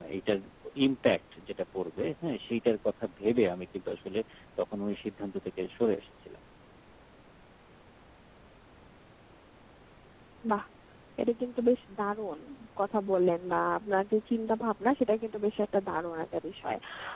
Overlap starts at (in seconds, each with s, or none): none